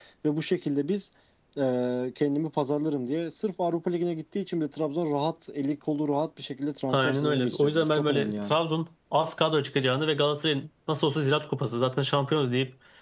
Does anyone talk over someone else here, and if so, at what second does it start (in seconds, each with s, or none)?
6.9 s